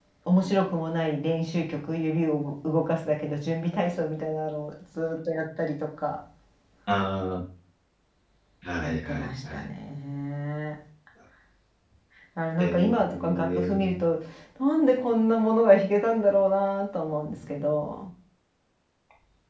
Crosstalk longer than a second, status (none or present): present